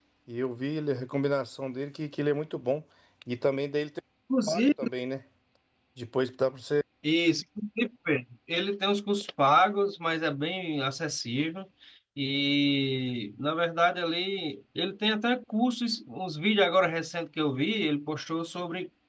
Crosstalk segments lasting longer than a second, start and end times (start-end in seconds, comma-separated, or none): none